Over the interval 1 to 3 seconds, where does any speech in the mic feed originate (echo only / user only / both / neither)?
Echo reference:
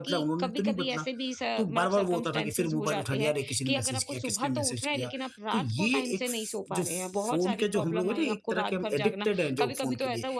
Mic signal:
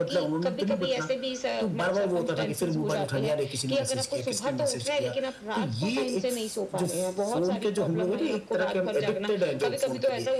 echo only